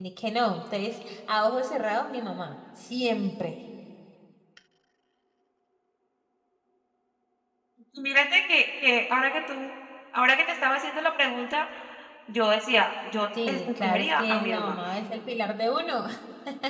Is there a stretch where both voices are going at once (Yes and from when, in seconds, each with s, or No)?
Yes, from 13.4 s